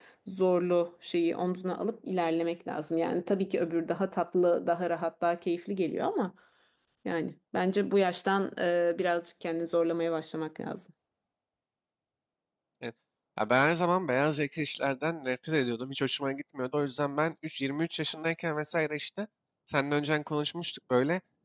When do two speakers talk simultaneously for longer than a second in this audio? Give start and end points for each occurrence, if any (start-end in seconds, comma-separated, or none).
none